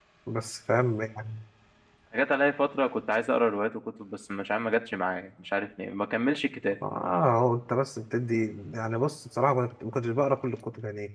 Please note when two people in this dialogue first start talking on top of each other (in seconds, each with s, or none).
none